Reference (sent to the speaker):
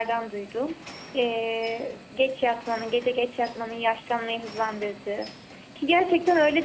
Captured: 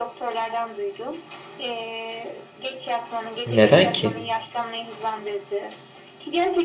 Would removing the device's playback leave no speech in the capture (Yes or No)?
No